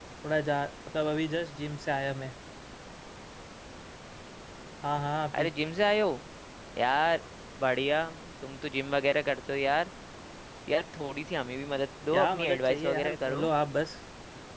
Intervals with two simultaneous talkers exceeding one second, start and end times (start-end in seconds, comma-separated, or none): 12.1-13.4